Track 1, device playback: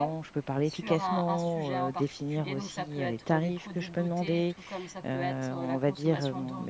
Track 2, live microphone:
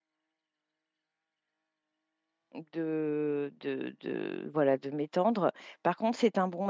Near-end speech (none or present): present